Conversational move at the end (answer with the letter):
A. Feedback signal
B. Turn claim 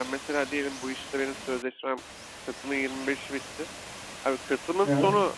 A